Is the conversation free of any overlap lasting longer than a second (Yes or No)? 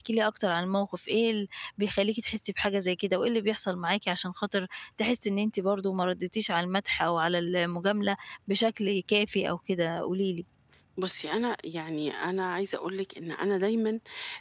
Yes